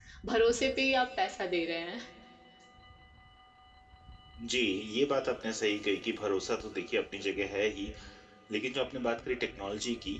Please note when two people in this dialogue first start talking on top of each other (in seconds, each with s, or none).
none